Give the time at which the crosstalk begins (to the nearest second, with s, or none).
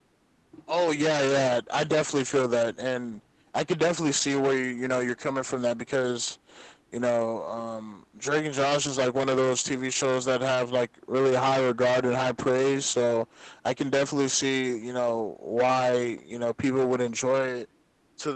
none